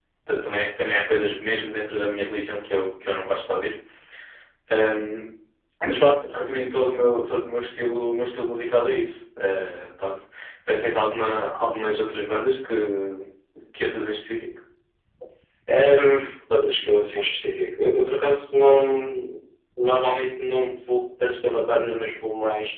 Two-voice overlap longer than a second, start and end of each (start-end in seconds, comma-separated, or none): none